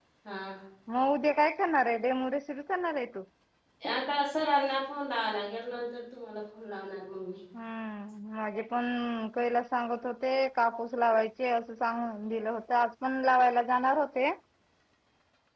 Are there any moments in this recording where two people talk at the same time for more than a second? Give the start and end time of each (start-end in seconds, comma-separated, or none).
none